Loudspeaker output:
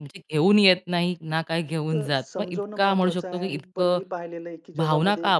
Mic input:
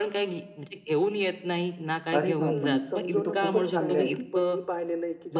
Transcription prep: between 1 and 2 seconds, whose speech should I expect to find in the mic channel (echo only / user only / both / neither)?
echo only